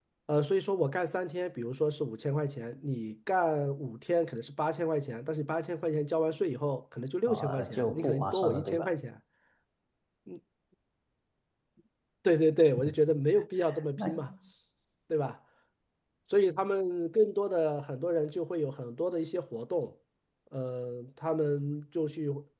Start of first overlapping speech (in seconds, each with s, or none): 7.3 s